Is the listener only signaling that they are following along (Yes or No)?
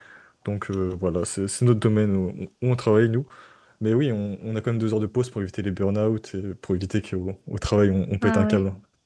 No